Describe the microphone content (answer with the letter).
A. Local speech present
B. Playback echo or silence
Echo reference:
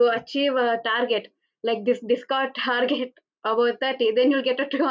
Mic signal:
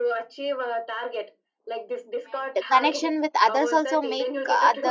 A